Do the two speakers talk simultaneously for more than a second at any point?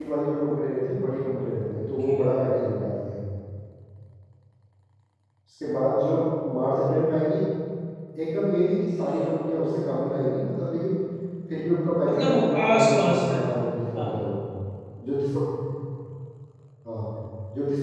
Yes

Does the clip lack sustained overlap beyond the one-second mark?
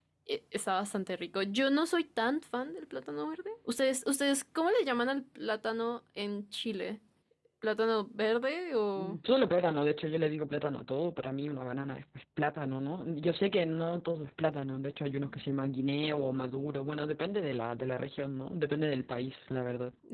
Yes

